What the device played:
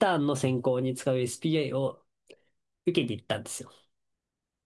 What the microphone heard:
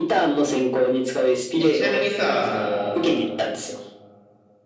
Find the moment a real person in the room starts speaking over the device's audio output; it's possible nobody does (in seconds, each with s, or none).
1.6 s